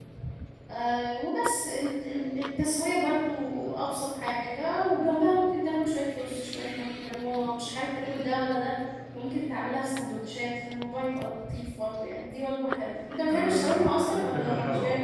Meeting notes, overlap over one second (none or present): present